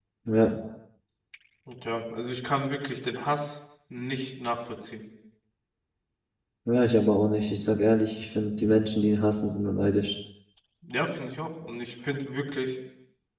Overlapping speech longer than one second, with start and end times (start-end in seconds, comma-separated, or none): none